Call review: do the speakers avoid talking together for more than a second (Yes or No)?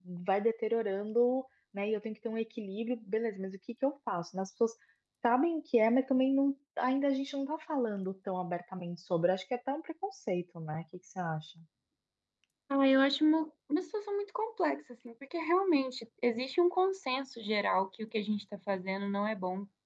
Yes